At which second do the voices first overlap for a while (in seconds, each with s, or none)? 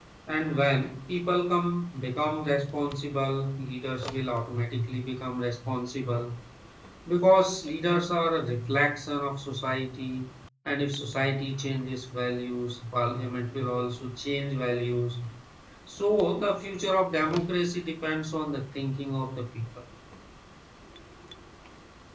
none